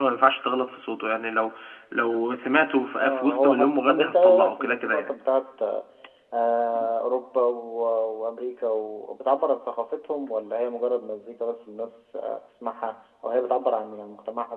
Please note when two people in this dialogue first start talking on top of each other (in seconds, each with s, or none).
3.0 s